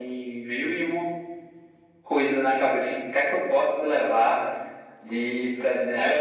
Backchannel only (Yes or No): No